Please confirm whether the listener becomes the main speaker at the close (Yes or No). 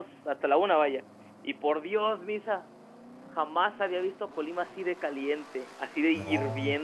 Yes